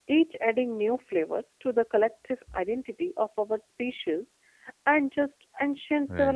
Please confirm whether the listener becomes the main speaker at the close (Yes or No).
No